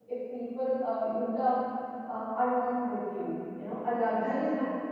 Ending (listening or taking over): listening